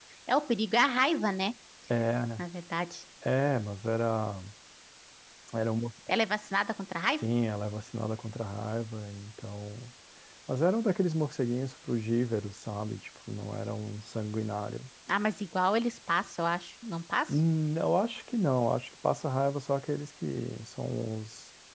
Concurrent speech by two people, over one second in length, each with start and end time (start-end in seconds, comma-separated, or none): none